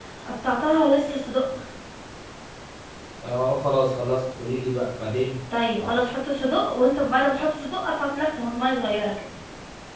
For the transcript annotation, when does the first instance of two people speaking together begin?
none

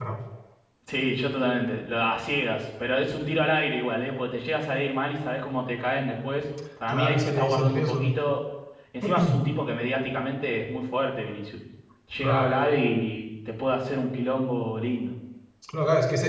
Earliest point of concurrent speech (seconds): 6.9 s

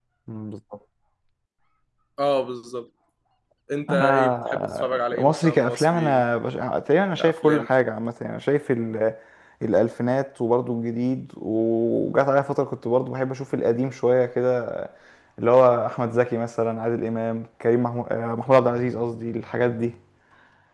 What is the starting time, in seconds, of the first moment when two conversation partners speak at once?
3.9 s

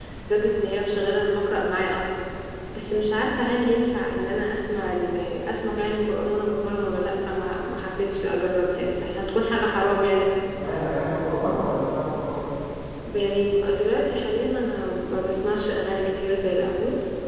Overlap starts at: none

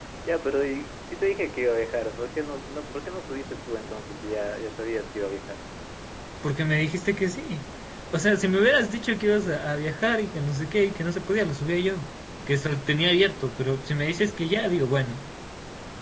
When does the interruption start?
none

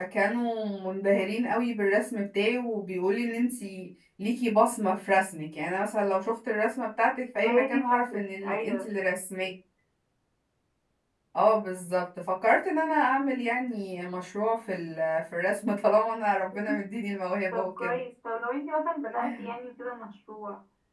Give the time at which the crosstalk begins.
7.4 s

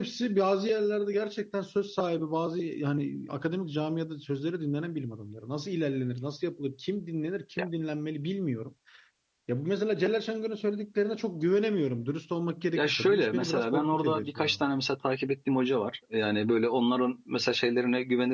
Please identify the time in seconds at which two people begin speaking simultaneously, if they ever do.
12.8 s

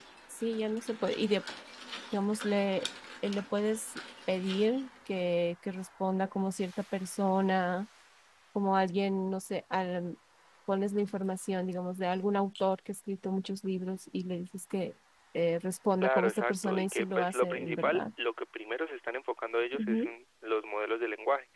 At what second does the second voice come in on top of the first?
16.0 s

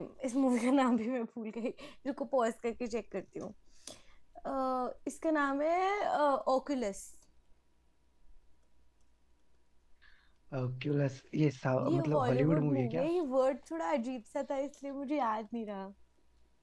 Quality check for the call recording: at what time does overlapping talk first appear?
11.8 s

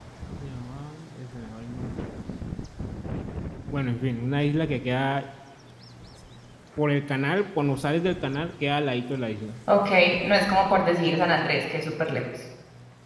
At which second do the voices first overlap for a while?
none

